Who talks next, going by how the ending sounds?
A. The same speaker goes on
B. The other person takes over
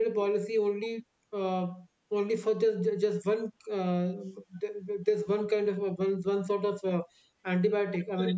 B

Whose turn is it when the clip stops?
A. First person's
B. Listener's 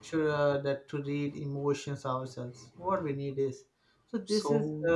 A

